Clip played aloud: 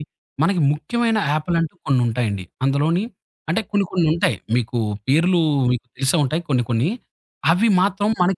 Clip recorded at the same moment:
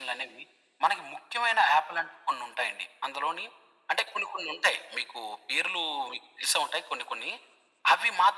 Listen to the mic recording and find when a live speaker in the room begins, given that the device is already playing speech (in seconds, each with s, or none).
none